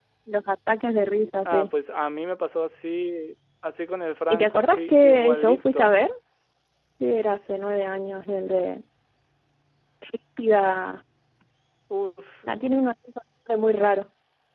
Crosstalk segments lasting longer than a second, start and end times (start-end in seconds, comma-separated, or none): 4.3-5.9